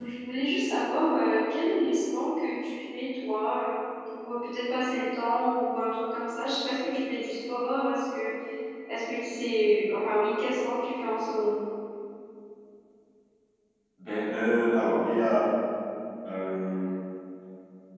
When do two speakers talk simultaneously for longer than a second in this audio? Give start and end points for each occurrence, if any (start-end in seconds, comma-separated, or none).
none